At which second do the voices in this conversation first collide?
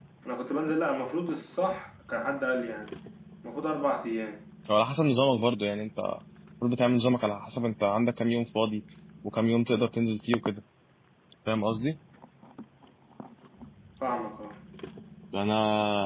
none

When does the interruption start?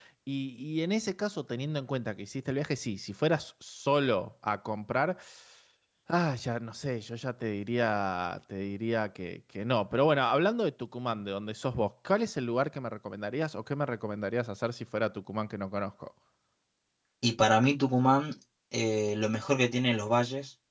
none

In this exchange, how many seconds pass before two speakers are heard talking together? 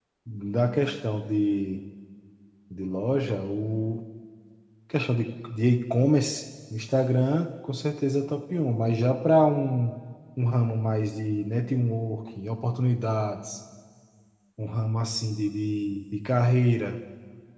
none

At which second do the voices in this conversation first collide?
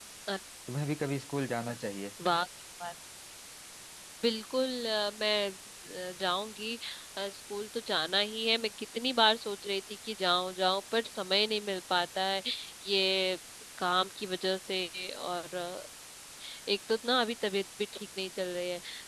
none

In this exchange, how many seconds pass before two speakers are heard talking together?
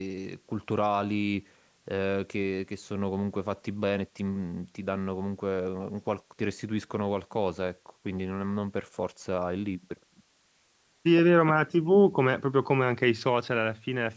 none

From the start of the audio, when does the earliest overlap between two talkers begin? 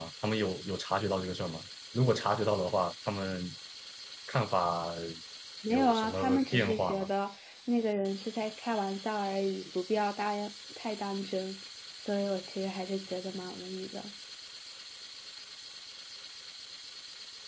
5.7 s

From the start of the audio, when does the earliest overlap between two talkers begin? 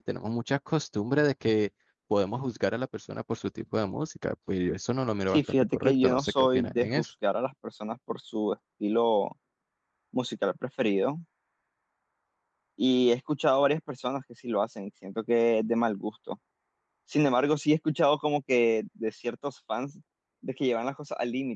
5.3 s

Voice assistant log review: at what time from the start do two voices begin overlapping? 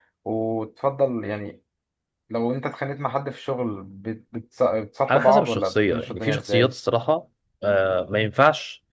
5.1 s

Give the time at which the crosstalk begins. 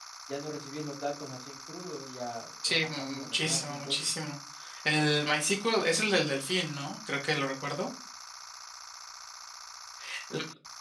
2.6 s

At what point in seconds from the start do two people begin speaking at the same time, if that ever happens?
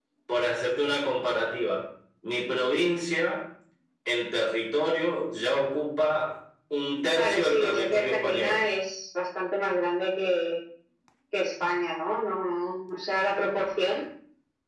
7.2 s

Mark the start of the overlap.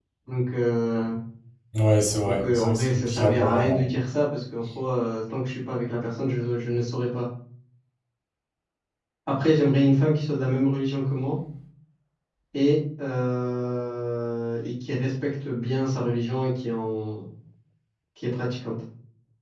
2.2 s

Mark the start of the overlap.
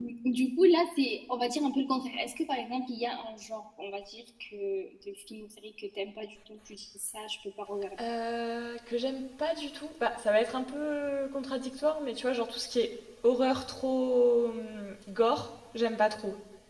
none

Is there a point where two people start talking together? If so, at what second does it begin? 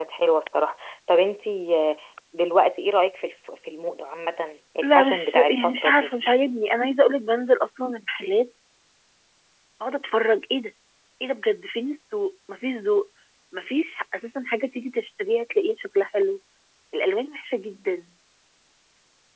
4.8 s

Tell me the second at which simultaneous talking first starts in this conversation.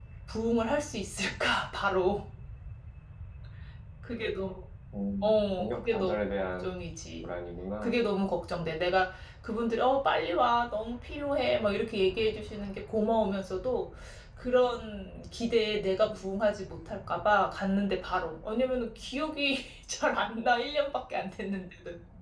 5.2 s

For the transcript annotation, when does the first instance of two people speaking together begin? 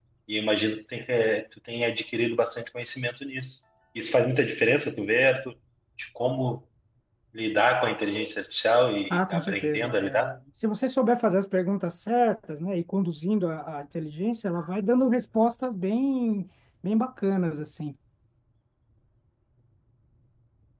9.1 s

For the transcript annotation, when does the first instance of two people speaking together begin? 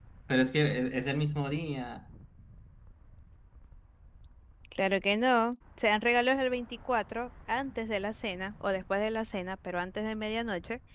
none

